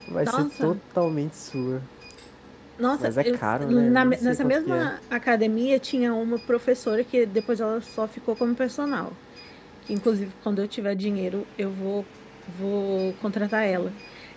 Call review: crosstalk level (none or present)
present